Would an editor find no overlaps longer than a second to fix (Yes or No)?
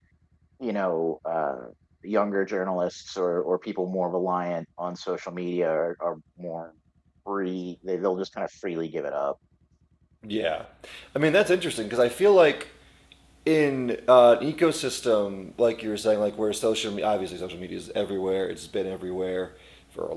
Yes